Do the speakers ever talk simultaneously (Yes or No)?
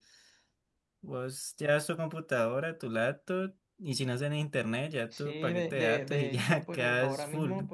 Yes